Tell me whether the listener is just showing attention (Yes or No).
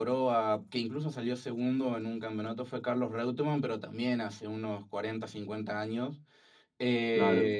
Yes